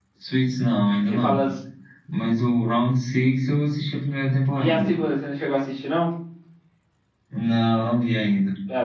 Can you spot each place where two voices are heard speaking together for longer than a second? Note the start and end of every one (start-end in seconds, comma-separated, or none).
none